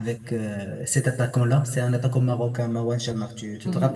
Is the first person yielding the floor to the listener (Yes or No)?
Yes